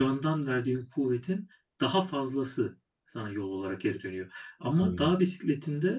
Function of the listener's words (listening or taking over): listening